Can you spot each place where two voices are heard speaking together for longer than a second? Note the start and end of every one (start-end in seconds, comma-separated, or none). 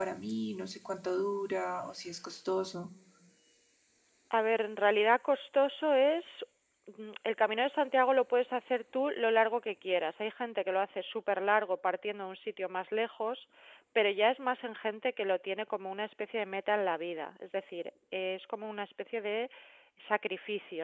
none